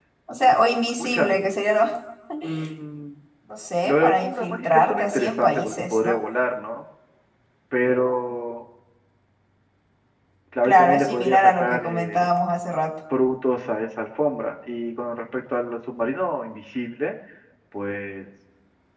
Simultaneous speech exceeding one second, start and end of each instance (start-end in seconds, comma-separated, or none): 3.8-6.2, 10.6-12.3